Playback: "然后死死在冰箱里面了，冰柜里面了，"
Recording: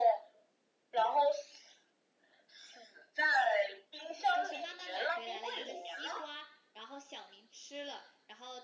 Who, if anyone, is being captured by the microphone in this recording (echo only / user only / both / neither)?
both